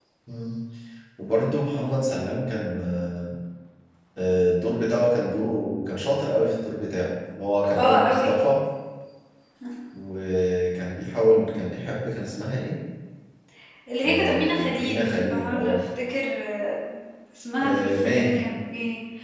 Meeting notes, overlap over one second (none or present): present